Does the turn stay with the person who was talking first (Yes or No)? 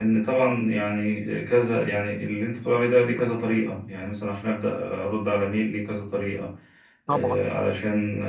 Yes